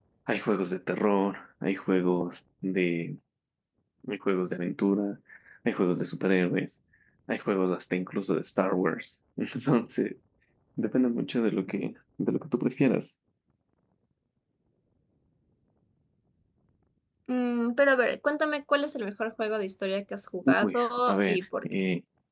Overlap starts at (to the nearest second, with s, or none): 20 s